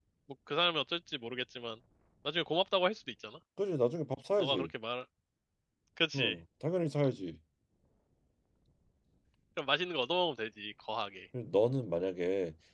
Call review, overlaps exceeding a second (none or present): none